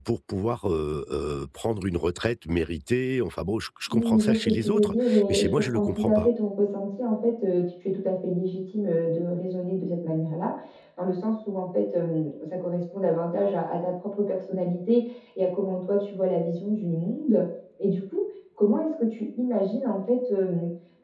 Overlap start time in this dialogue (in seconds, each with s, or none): 3.9 s